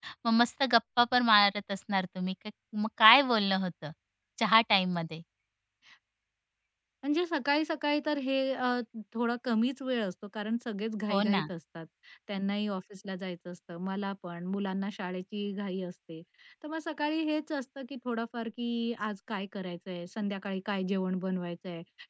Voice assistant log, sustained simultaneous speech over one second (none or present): none